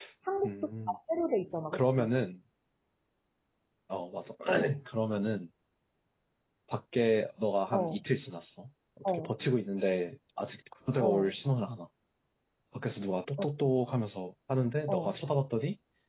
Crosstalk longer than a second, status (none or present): none